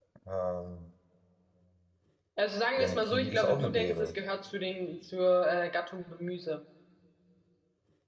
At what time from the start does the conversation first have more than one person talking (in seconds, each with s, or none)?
2.8 s